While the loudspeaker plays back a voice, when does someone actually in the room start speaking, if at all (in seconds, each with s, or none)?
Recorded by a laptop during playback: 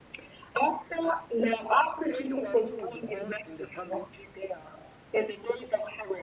2.1 s